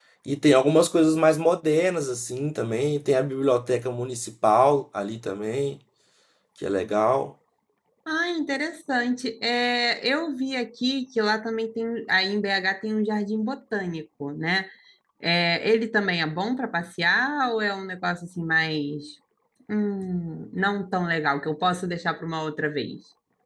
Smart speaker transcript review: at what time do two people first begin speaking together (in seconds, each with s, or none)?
none